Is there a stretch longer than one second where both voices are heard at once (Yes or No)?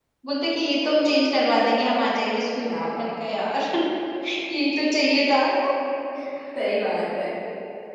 No